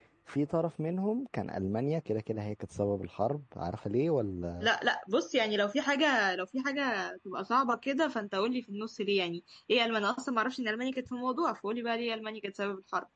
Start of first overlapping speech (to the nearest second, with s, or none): none